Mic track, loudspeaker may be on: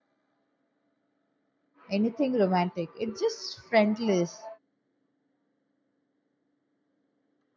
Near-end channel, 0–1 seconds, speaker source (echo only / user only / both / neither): neither